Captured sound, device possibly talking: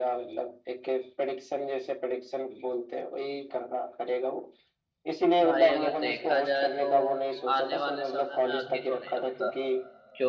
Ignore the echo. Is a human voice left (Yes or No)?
Yes